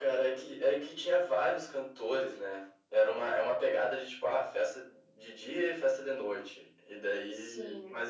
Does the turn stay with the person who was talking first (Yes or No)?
Yes